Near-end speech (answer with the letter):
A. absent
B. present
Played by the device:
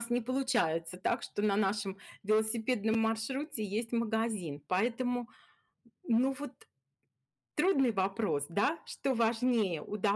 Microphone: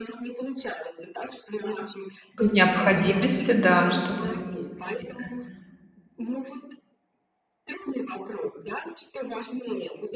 B